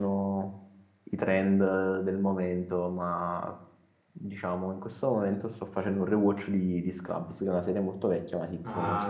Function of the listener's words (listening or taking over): taking over